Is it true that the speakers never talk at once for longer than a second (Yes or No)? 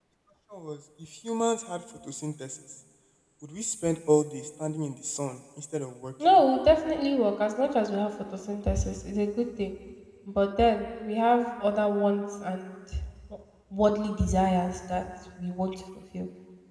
Yes